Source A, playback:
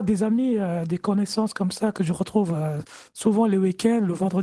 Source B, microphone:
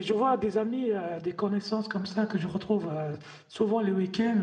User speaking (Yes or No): No